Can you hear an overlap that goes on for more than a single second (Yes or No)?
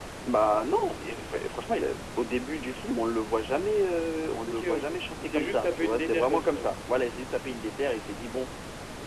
Yes